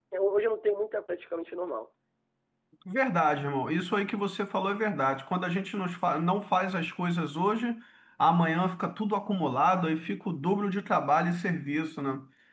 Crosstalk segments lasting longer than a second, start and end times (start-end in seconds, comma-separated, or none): none